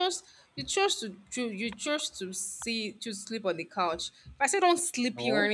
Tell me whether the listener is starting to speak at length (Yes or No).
No